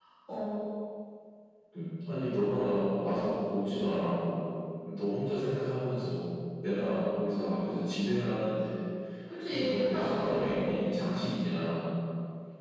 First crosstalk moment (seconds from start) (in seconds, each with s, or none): 9.5 s